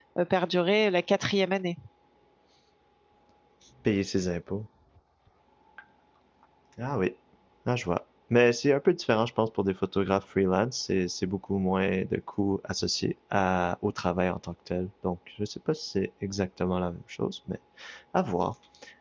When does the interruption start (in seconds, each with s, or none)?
none